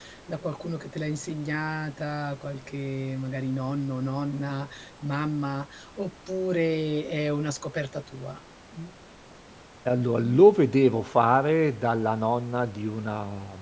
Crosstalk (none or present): none